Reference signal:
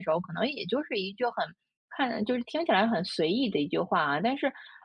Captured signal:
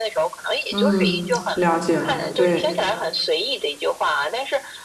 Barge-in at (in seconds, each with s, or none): 0.7 s